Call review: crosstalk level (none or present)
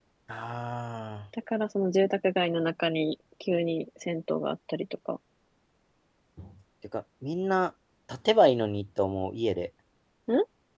none